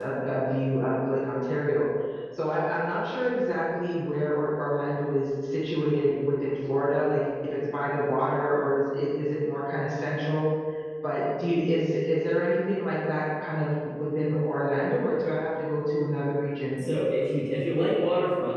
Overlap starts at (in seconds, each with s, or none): none